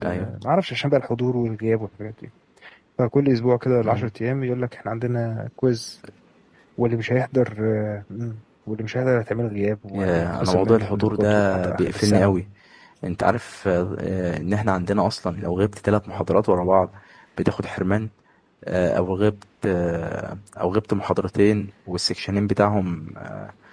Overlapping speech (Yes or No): Yes